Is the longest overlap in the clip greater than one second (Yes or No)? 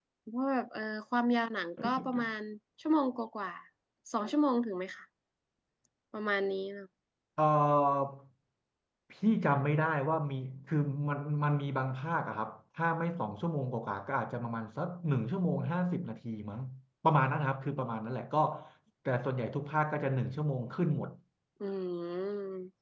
No